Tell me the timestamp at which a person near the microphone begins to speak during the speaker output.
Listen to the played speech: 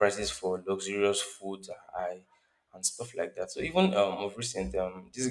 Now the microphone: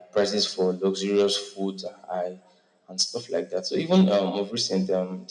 none

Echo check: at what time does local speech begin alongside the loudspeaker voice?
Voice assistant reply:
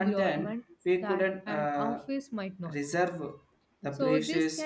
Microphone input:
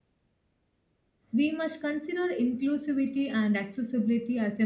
1.3 s

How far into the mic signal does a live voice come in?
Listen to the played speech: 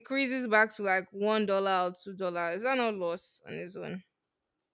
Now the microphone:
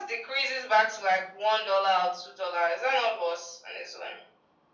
none

